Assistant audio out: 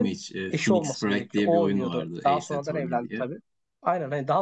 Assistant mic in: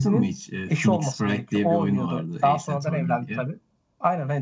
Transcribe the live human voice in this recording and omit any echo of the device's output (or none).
none